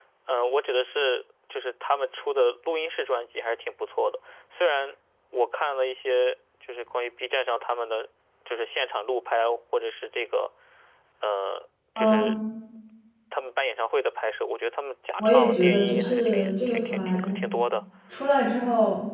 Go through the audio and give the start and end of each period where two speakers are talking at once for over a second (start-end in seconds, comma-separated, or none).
15.2-17.4